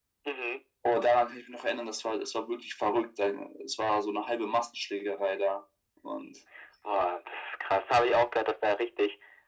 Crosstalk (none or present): none